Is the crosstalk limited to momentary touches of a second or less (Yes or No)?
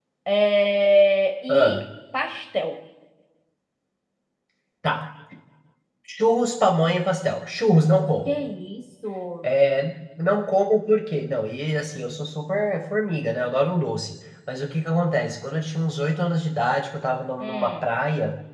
Yes